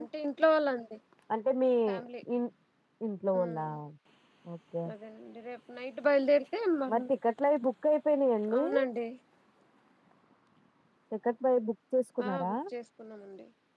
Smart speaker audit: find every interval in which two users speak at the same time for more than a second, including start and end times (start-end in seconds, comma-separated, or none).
none